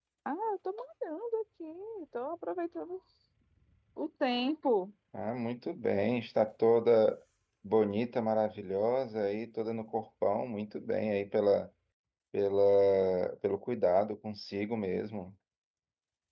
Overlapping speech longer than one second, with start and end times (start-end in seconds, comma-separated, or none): none